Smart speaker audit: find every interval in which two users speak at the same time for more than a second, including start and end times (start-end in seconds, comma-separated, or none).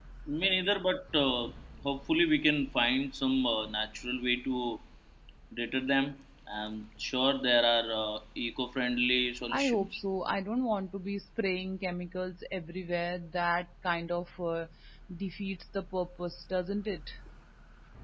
none